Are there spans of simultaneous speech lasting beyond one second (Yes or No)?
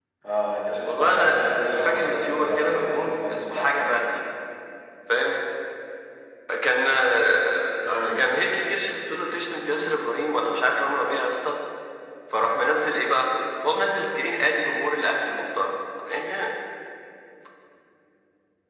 Yes